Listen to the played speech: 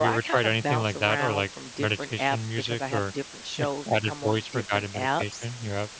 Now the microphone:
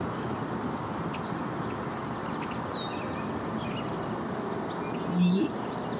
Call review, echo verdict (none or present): none